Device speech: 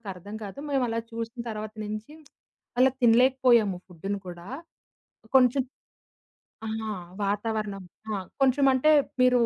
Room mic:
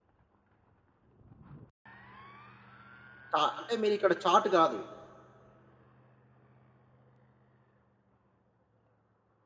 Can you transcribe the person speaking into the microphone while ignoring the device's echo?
చా అంటే మీరిక్కడ చాట్ కాదు.

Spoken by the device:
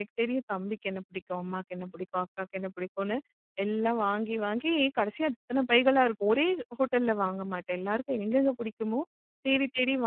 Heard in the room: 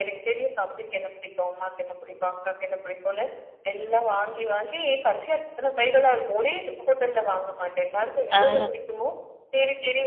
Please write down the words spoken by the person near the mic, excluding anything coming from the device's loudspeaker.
ஆ.

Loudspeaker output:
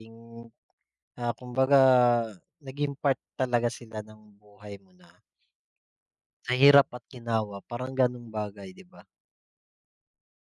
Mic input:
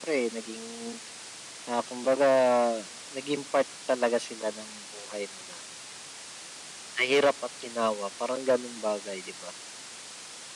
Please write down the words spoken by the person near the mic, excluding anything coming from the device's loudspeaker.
none

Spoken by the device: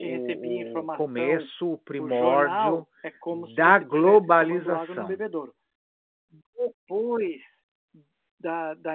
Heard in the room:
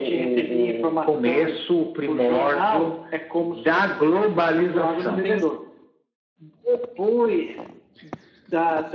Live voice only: com certeza.

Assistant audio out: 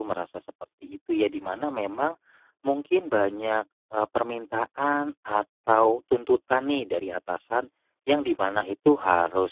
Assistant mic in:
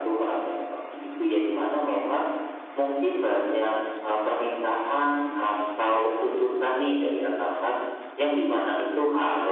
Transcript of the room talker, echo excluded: none

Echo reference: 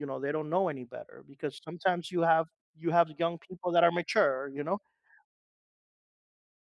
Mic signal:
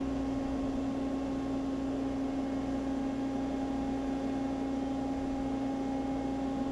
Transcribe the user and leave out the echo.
none

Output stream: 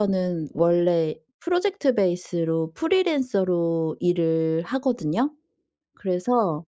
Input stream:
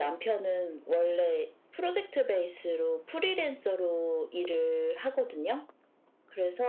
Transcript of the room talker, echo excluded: none

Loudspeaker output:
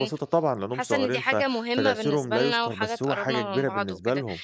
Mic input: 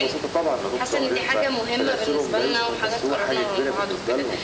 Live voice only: none

